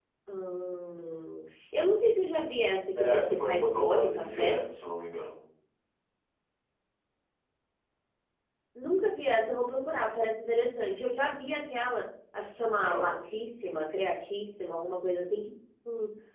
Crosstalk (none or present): present